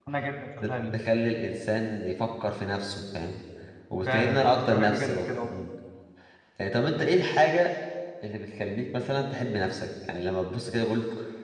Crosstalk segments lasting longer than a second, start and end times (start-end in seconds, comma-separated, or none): 4.1-5.5